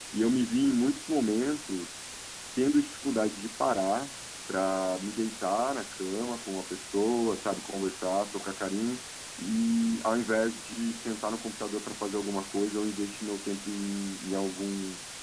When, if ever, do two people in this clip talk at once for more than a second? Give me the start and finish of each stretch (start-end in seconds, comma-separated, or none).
none